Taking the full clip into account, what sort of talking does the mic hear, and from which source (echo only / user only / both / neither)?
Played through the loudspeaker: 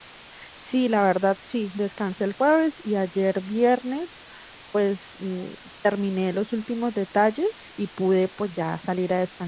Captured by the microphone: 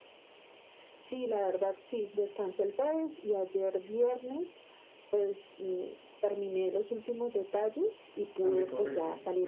both